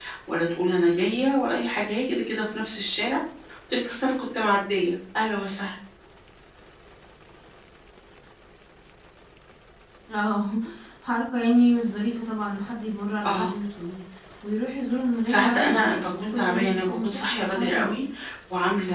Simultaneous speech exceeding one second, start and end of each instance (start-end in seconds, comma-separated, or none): 15.3-18.0